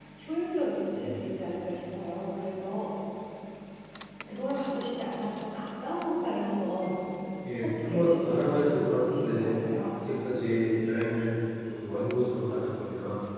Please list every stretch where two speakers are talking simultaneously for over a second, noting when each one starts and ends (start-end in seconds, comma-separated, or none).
7.5-9.5